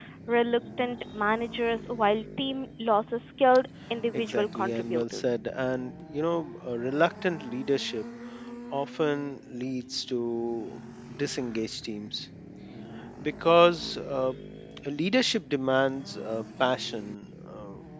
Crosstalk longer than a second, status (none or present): present